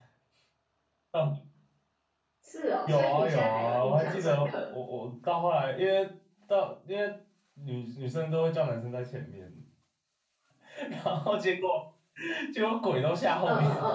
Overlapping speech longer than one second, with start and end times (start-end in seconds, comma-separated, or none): 2.9-4.5